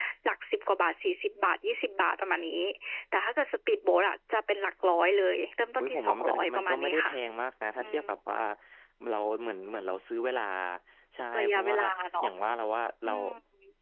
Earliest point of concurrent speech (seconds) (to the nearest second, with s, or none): 6 s